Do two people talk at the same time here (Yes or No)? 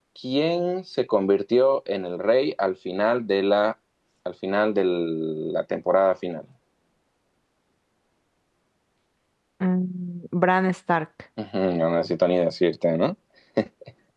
No